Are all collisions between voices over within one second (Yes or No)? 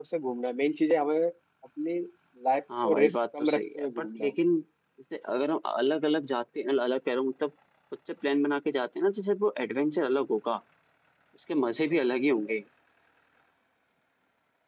No